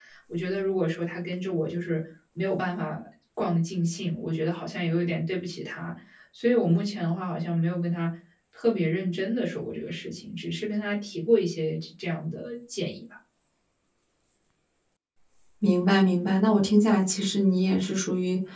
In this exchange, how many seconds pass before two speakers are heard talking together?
none

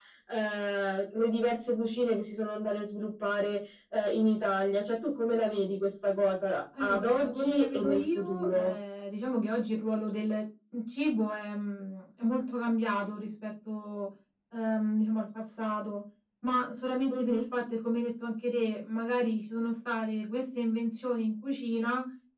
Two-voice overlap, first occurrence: 6.8 s

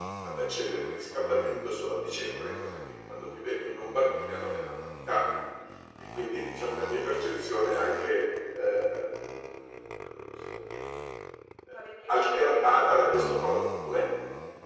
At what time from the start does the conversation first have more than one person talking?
12.1 s

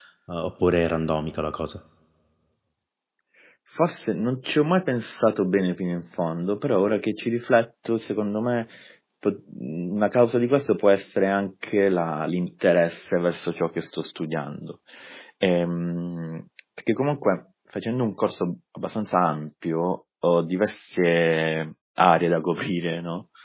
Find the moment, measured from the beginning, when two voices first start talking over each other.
none

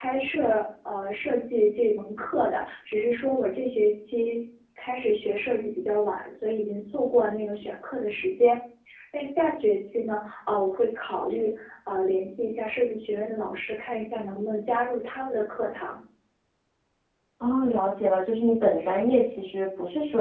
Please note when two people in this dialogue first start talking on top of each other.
none

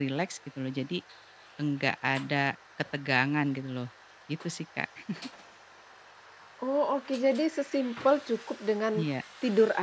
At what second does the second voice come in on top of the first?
none

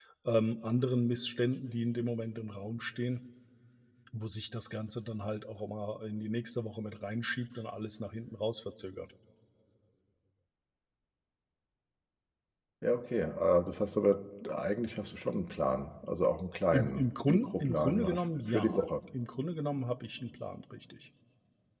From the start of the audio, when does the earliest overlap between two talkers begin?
16.7 s

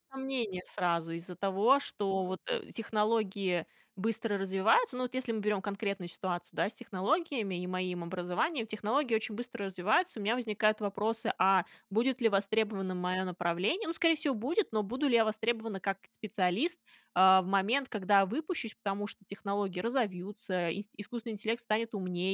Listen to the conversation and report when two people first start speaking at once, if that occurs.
none

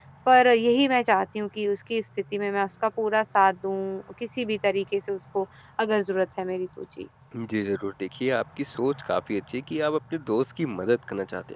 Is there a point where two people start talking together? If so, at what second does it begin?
none

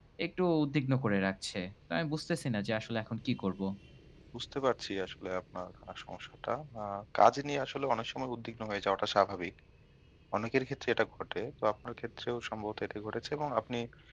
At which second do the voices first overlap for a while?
none

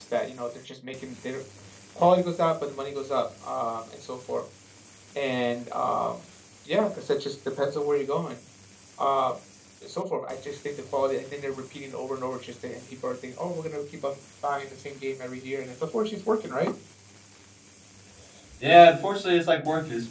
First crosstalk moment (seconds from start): none

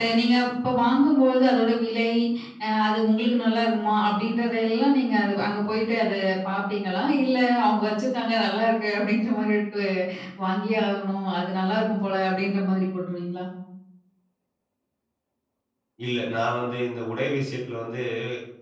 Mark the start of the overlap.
none

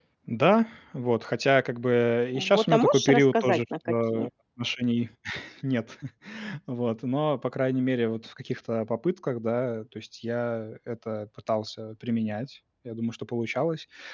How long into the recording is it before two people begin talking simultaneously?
2.4 s

